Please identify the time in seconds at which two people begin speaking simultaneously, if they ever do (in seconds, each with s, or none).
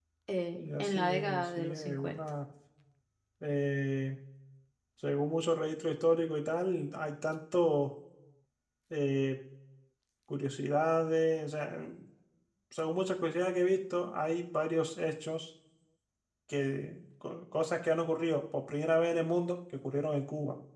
0.5 s